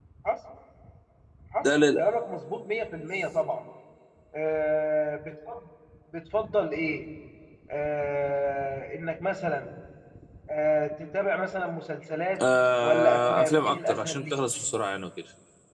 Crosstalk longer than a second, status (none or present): present